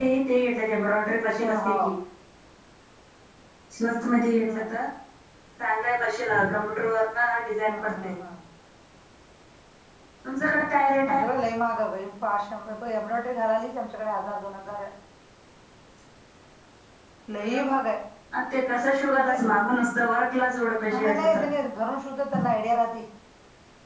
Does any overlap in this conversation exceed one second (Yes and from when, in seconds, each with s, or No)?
No